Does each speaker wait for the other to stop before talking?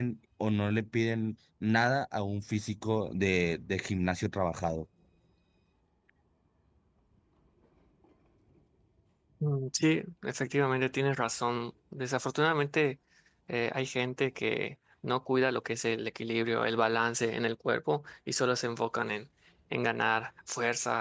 Yes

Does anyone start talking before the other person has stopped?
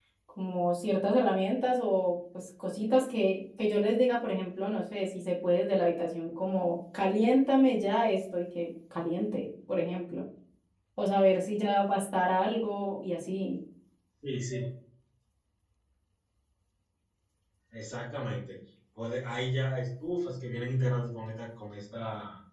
No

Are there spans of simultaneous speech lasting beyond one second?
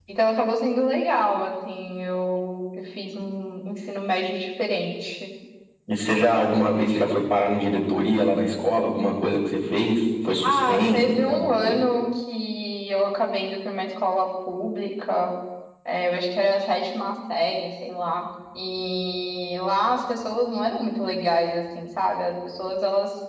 Yes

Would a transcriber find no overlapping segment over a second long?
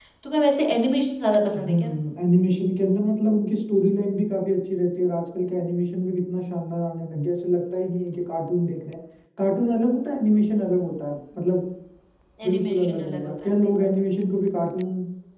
No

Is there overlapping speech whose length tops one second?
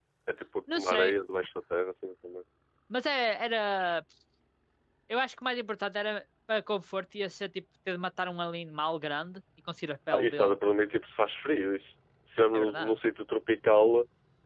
No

